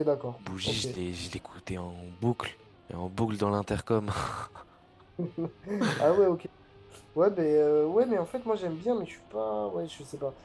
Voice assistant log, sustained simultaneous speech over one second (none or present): none